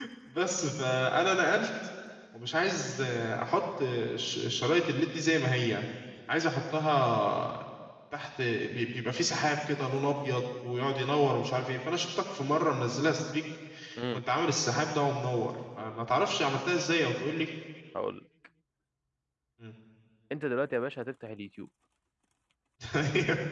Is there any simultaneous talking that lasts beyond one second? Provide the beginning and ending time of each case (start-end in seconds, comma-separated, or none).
none